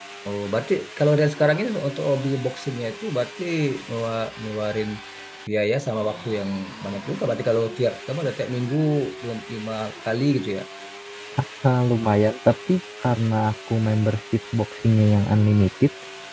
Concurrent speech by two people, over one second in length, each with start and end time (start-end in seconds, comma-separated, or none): none